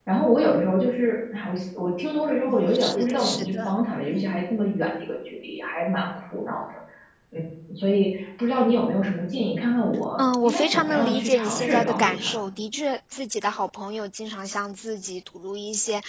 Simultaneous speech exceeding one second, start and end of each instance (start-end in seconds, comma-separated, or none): 2.5-3.7, 10.2-12.3